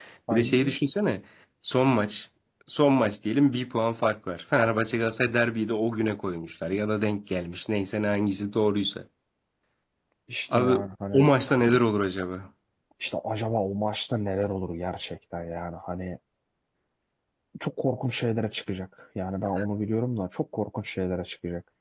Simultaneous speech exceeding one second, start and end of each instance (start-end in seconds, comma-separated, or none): none